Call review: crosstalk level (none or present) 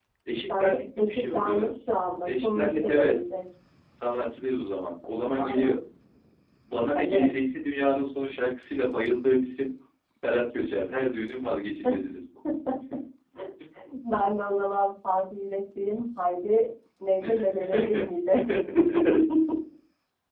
present